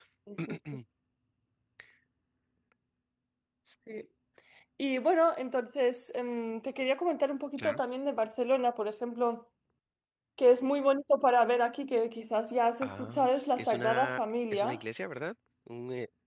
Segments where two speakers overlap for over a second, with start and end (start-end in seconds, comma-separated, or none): 12.8-14.8